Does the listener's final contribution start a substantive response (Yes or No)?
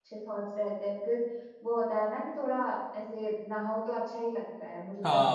Yes